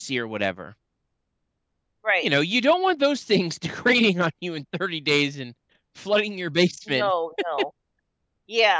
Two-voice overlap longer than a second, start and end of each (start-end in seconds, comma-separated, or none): none